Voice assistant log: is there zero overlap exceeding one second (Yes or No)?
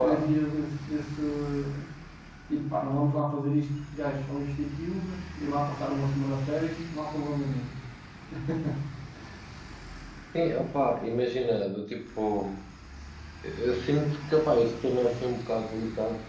Yes